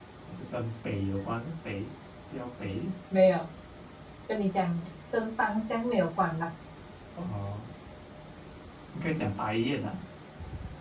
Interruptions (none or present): none